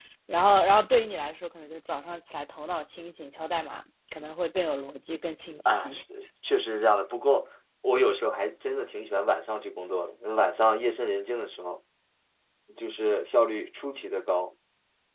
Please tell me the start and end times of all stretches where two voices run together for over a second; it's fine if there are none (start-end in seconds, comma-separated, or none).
none